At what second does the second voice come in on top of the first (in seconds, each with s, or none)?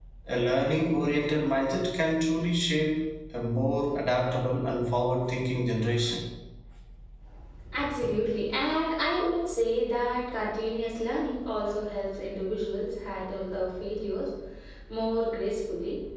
none